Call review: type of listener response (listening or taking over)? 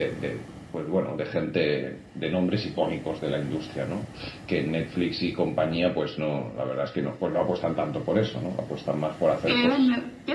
taking over